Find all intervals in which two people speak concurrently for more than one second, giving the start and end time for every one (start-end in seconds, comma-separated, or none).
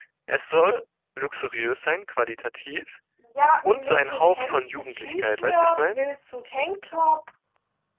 3.6-6.0